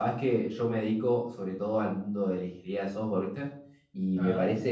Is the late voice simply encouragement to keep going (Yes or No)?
Yes